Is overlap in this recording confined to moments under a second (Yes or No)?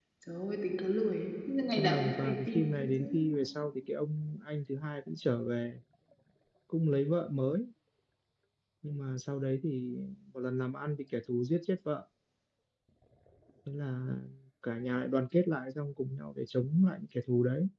No